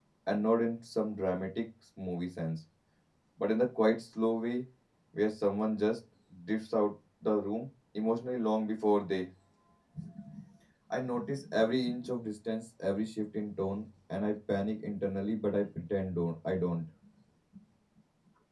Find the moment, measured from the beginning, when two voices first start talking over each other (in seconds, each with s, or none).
none